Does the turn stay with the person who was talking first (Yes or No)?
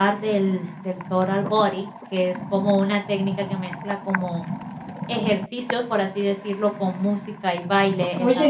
Yes